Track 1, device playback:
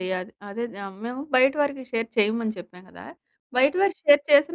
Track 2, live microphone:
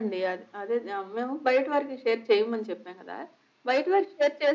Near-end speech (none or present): none